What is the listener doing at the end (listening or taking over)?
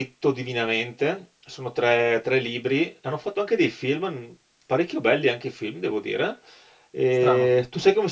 listening